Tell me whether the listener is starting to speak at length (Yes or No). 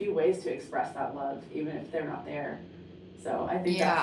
Yes